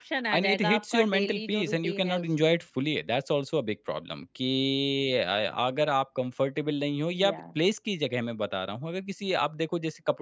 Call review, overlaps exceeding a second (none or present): present